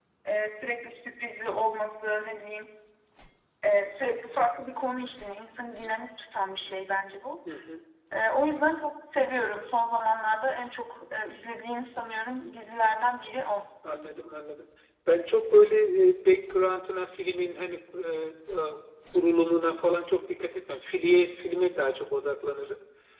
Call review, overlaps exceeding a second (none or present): none